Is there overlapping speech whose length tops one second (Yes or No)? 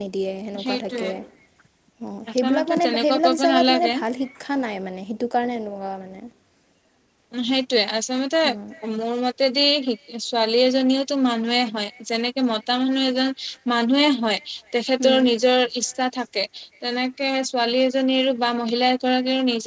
Yes